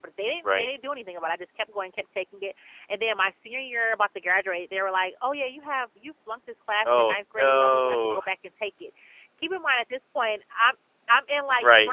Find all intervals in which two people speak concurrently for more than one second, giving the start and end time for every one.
6.9-8.2

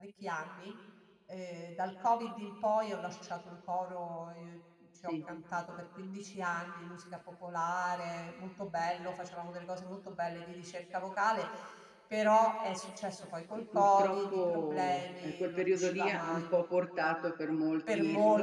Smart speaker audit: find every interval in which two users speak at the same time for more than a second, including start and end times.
13.6-16.4

